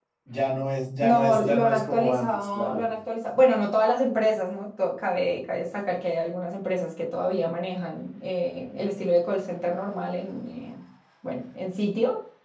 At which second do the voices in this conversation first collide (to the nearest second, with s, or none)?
1 s